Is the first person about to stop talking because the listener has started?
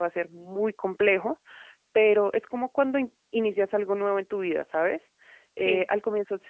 No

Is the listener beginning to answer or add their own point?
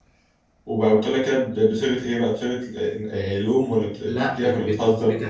Yes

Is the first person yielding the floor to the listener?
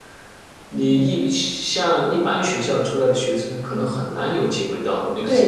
Yes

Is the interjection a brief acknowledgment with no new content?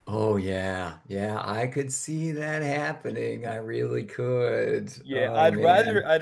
No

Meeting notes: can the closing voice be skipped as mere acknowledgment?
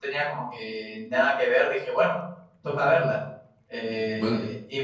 Yes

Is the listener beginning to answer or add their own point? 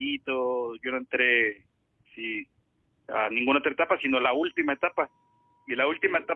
No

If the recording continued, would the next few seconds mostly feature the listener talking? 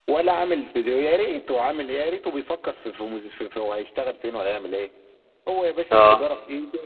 No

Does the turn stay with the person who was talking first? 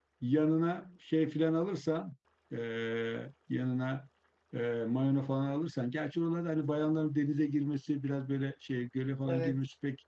Yes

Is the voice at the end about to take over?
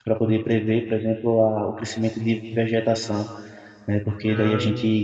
No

